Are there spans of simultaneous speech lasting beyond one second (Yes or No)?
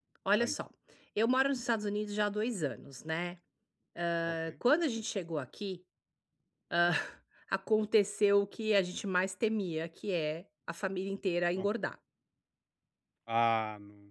No